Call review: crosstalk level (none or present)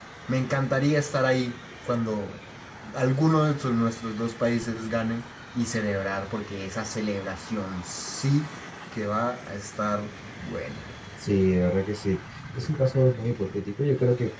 none